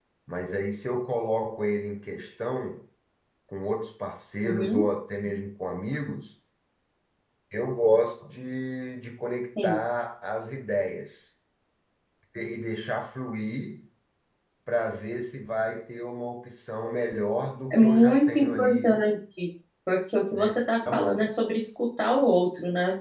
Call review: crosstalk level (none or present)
present